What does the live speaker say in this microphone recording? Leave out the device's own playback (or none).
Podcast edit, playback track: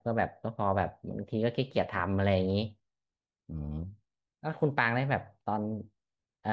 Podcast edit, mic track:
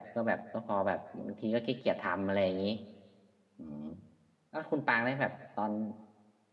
none